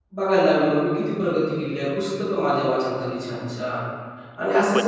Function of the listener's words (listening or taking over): taking over